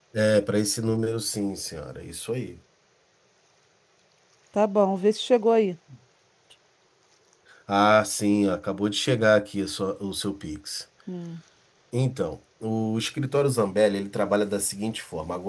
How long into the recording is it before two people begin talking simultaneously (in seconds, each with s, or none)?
none